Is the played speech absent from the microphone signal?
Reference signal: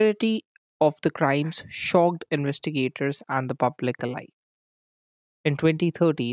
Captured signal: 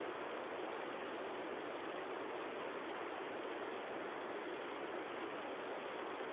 Yes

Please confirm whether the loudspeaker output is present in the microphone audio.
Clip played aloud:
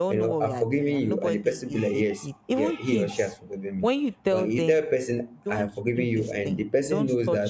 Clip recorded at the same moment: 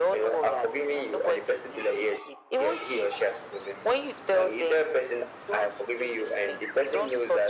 Yes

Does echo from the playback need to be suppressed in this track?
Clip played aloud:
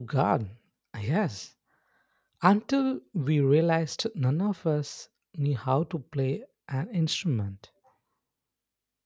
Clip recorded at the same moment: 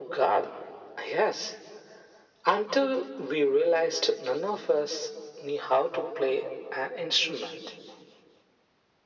Yes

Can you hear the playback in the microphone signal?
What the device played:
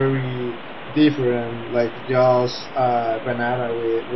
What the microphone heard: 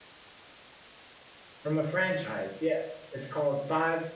No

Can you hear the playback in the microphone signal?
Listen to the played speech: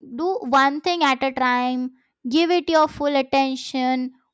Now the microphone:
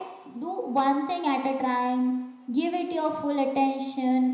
Yes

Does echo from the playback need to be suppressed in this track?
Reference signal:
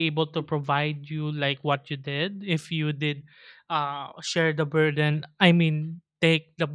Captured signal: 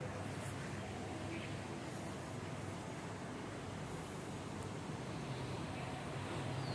No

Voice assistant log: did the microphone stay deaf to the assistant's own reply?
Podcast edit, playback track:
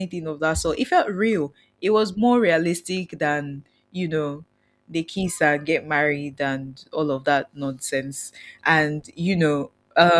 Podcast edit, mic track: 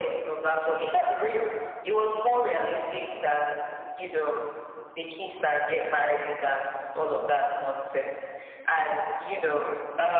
No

